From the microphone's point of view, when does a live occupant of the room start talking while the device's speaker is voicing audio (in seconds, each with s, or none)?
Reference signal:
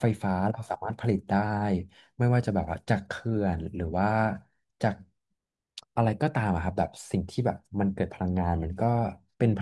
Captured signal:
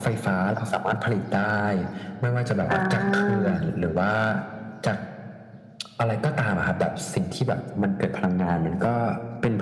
2.7 s